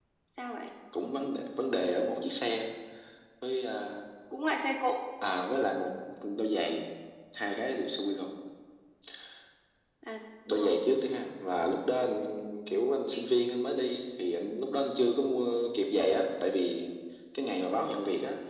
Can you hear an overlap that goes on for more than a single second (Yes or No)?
No